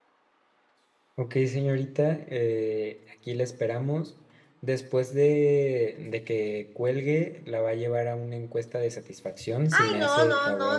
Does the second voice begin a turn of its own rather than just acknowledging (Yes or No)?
Yes